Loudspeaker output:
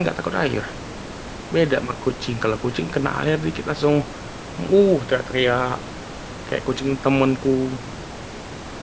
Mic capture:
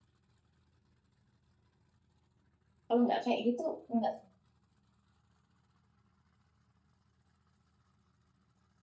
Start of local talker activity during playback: 2.9 s

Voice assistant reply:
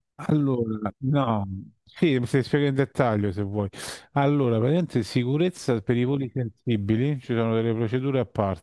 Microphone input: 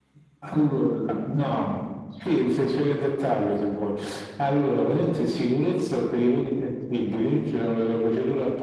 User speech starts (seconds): none

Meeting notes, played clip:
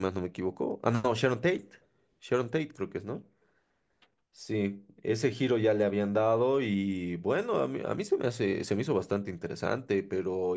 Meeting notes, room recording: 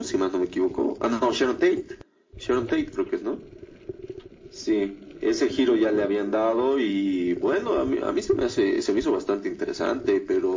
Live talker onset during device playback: none

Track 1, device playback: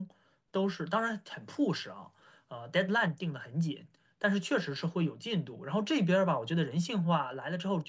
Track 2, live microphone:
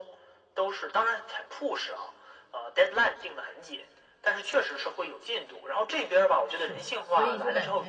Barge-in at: 6.4 s

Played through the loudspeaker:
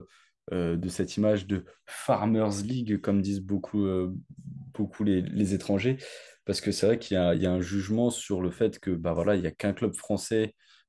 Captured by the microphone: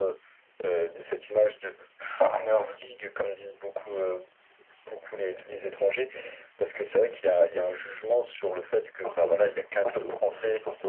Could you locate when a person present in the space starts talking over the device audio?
9.0 s

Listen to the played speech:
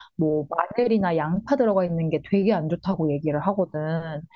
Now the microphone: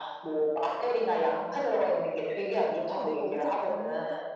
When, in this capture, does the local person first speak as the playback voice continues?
2.9 s

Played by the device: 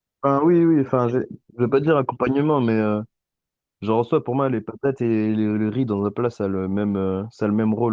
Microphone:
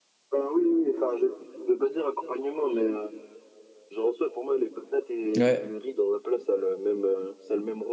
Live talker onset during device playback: 5.4 s

